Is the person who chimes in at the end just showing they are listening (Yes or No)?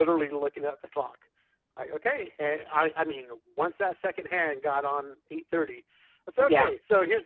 Yes